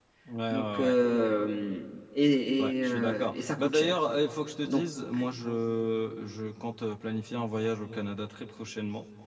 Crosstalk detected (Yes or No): Yes